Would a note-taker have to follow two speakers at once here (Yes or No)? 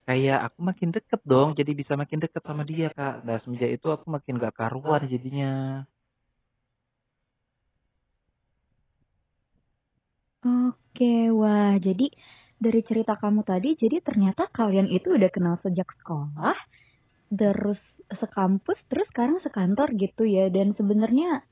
No